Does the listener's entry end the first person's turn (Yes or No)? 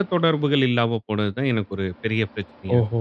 Yes